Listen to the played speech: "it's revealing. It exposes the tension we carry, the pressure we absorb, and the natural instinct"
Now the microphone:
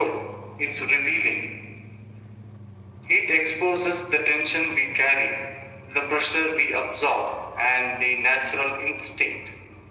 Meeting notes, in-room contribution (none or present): none